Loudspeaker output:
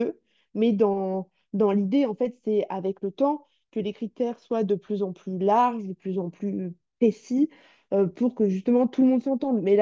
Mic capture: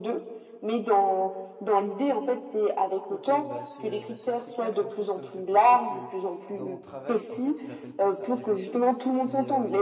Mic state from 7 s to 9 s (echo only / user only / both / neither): both